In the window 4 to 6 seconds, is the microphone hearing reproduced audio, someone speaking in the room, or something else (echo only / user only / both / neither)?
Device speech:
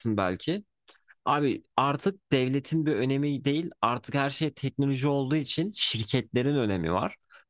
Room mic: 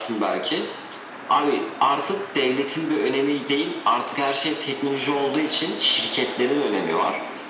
echo only